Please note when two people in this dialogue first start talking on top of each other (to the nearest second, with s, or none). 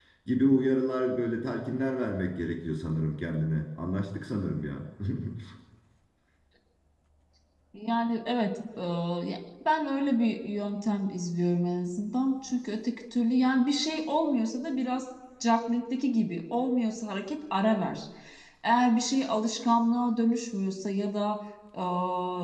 none